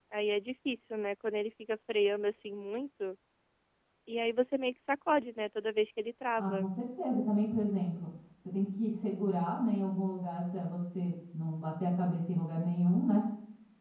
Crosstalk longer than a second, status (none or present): none